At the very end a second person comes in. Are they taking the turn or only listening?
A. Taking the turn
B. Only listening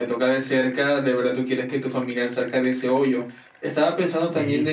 B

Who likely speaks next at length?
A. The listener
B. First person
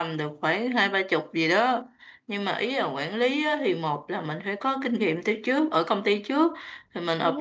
B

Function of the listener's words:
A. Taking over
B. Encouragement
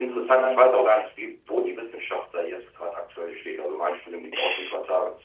B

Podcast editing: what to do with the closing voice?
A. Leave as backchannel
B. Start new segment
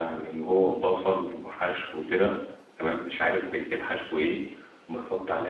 A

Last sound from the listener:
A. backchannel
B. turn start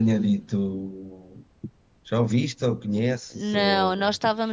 B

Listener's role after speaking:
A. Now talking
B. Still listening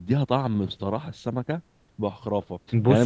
B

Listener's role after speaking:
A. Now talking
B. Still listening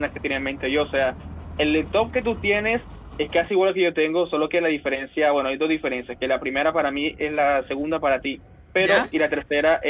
B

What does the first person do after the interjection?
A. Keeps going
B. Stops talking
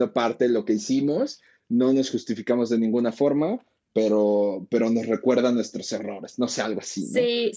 B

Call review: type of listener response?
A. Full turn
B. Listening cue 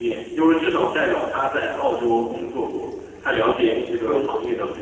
B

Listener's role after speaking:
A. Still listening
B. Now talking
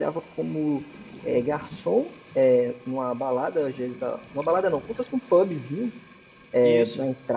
A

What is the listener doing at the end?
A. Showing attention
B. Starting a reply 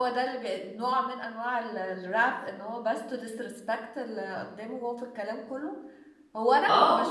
A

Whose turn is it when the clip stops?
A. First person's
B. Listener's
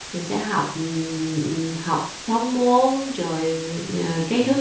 A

